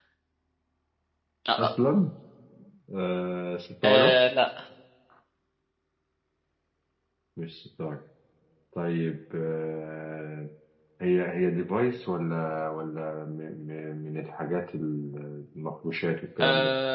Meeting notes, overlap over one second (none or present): none